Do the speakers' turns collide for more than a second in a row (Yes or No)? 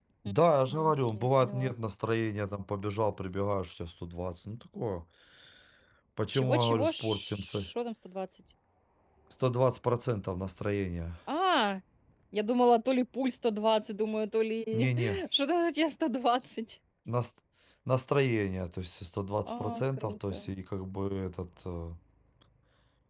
Yes